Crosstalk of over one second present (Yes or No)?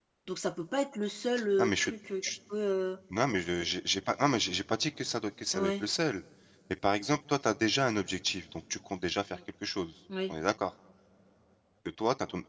No